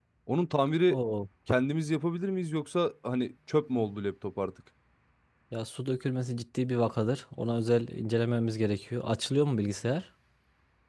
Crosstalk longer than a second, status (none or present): none